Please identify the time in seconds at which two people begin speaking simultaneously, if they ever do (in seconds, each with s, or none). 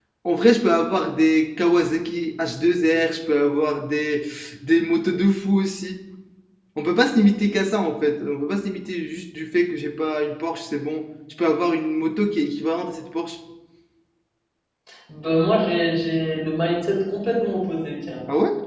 none